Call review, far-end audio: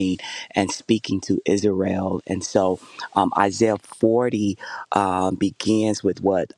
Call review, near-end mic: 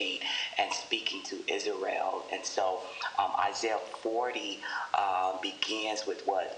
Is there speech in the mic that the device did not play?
No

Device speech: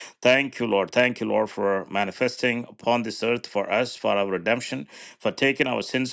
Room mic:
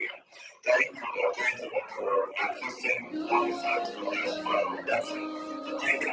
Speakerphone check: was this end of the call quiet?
No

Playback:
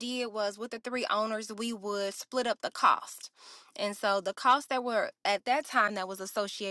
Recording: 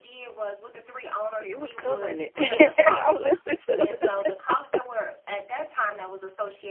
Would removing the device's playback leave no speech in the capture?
No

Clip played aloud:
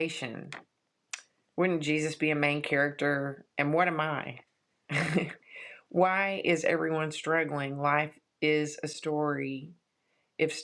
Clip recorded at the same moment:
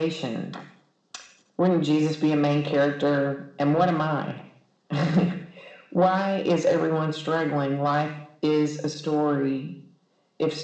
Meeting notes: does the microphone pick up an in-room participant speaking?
No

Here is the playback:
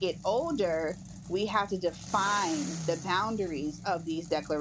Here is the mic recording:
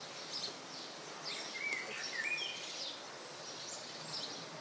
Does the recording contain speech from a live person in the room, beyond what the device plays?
No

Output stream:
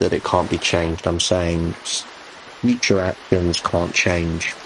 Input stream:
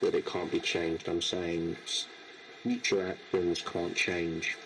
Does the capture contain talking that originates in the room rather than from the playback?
No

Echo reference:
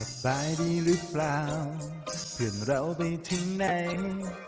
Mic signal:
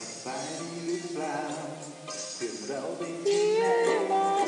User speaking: Yes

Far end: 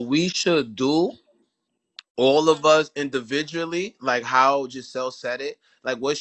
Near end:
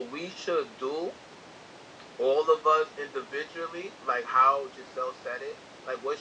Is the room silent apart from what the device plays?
Yes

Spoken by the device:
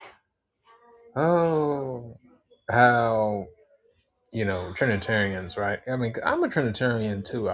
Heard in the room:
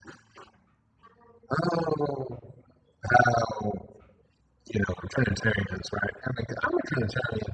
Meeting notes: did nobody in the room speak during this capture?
Yes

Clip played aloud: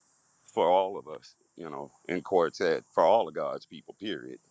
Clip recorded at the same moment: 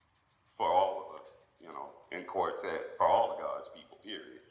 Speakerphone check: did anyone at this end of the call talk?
No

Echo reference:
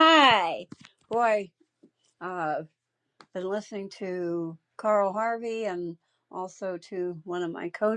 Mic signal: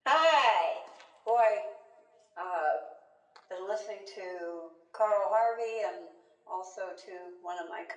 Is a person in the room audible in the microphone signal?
No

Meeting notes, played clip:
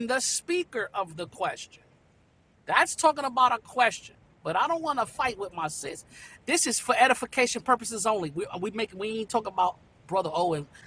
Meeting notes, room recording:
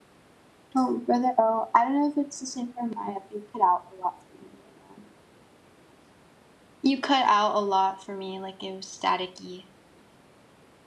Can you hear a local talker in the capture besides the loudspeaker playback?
Yes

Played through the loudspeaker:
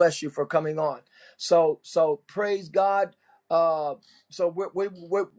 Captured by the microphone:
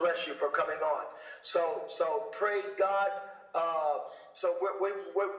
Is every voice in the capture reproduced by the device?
Yes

